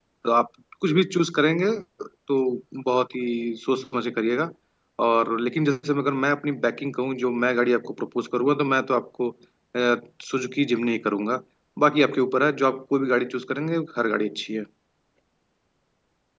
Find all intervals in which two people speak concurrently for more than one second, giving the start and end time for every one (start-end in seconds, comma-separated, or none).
none